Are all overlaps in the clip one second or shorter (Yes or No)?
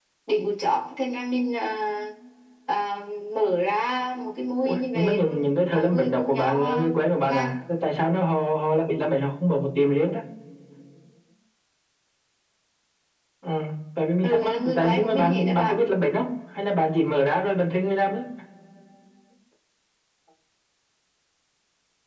No